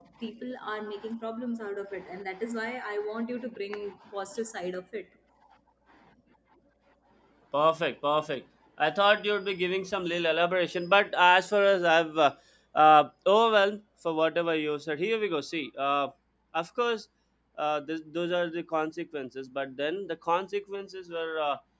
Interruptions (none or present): none